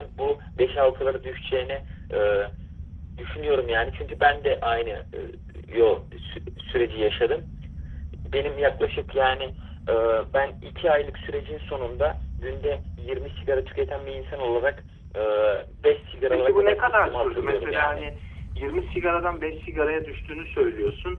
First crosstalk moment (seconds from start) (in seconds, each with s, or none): 16.3 s